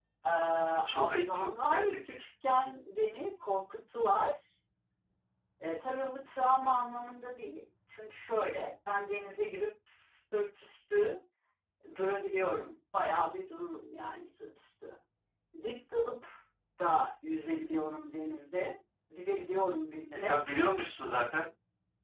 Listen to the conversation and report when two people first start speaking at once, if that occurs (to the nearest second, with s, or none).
1 s